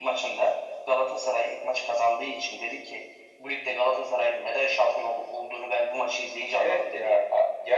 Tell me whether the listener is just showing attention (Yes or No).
No